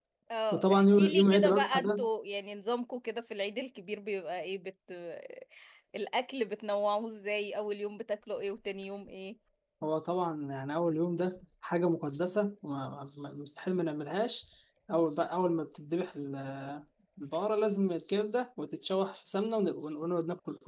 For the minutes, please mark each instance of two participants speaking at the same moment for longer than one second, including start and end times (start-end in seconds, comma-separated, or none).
0.5-2.0